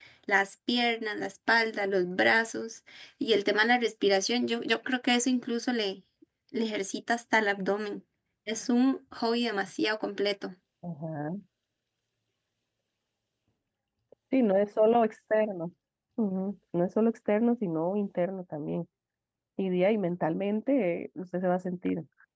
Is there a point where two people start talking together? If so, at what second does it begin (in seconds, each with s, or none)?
none